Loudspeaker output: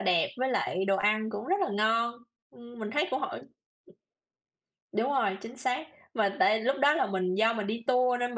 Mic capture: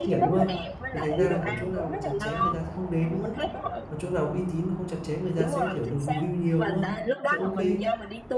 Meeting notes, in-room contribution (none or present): present